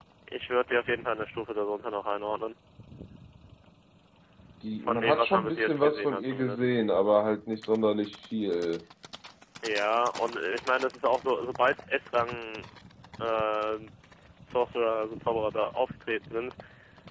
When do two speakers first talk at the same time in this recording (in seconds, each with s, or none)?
4.8 s